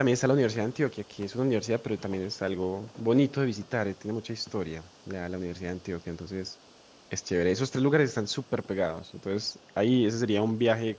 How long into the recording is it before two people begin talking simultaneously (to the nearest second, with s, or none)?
none